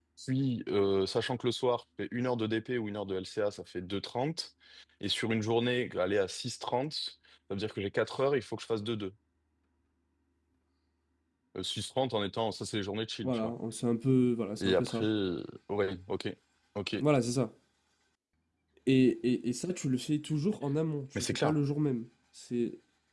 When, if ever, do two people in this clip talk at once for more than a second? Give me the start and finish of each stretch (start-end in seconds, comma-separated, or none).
none